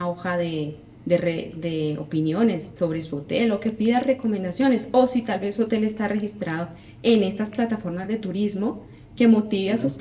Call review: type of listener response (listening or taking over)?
listening